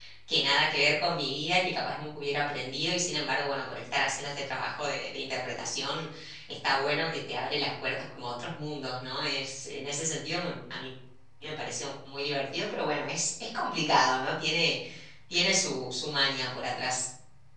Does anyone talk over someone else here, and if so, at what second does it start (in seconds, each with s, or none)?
none